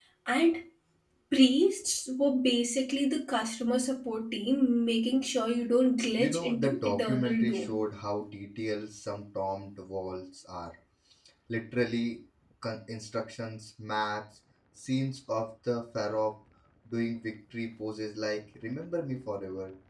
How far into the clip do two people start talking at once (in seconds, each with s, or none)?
6.2 s